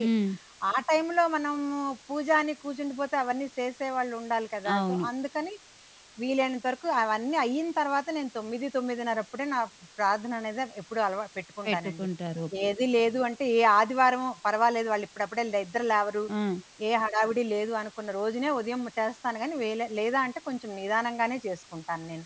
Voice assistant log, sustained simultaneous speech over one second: none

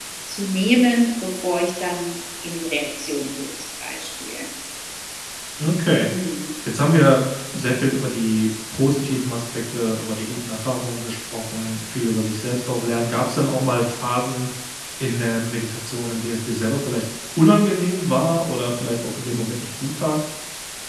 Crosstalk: none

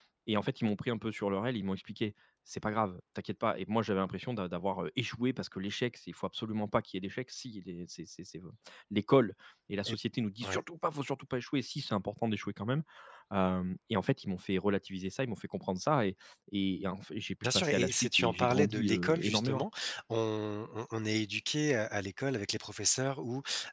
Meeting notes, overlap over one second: present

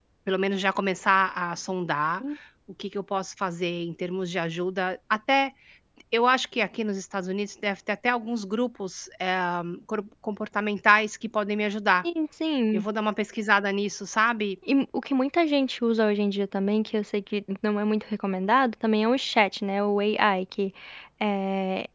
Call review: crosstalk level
none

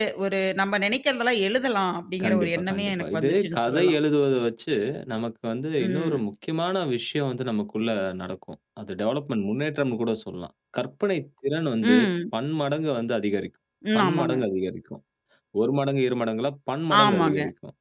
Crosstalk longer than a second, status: present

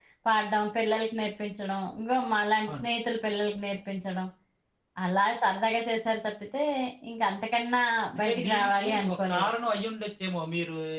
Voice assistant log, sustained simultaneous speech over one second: present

